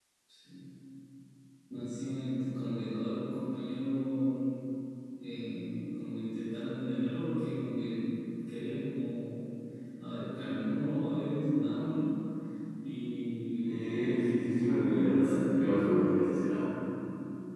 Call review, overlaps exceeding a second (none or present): present